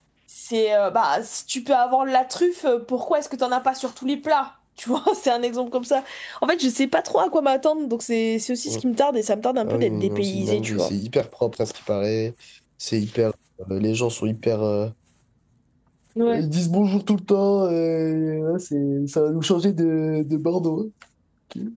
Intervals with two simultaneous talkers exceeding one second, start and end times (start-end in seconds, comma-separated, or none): 9.6-10.9